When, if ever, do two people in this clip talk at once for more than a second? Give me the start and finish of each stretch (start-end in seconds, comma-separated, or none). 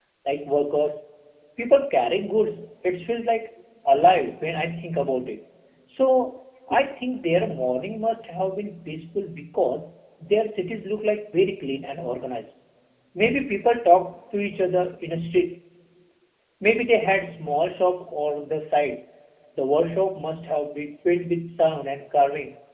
none